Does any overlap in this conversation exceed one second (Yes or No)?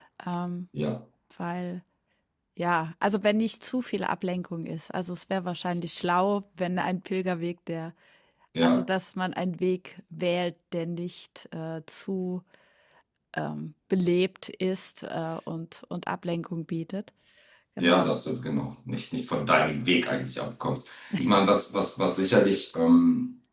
No